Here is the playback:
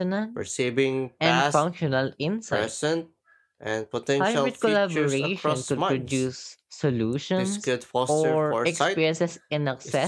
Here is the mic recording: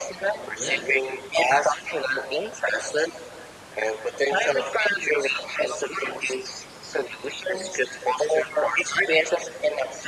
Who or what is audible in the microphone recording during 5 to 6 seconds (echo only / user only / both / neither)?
echo only